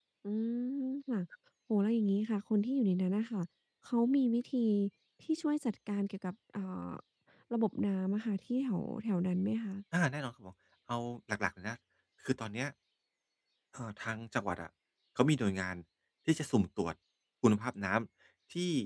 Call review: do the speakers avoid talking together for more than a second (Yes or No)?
Yes